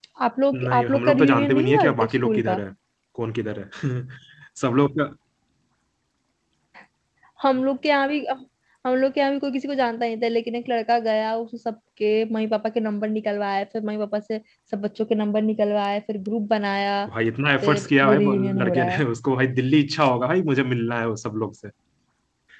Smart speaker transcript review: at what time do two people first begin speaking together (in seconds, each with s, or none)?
0.5 s